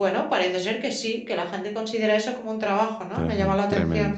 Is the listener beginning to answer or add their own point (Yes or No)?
Yes